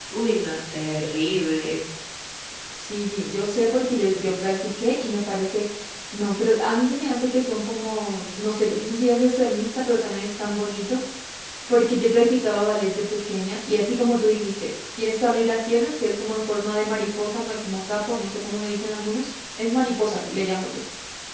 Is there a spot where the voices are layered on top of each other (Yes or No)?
No